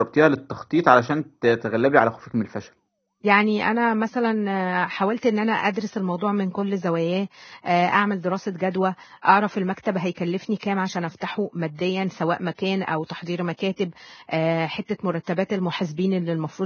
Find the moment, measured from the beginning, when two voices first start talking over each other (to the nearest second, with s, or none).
none